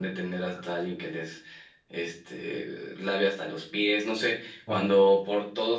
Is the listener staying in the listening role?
Yes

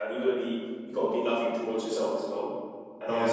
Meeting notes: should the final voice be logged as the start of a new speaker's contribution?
No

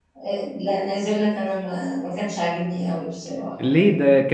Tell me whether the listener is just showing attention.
No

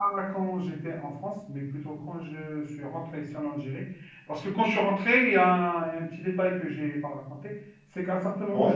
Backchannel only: Yes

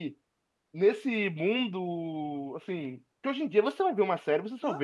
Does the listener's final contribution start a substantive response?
Yes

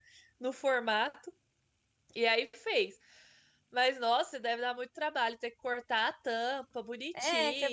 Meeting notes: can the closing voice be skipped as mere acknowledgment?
No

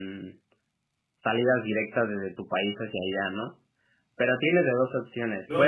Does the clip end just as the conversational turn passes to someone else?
Yes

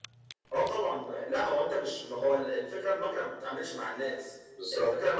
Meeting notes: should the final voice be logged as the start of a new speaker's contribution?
No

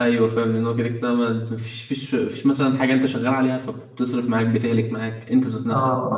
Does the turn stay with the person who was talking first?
No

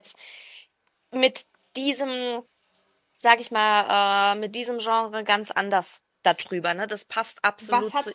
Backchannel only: No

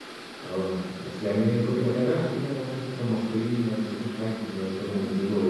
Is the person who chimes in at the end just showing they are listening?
Yes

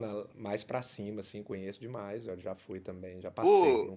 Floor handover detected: Yes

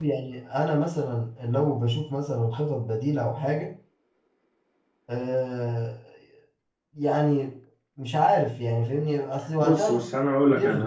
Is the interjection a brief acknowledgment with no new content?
No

